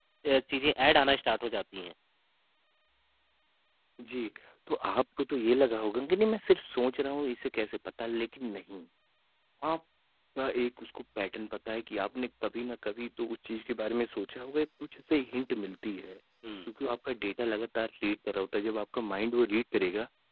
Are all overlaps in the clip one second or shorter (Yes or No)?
Yes